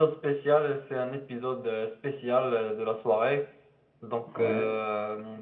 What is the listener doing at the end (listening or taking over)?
listening